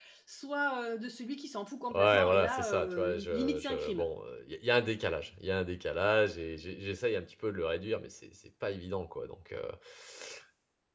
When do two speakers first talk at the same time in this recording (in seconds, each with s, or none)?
1.9 s